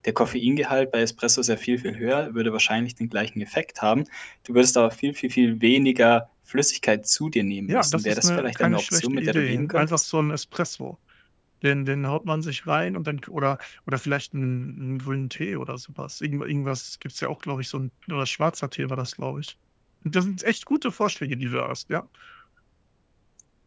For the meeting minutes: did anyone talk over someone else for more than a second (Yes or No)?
Yes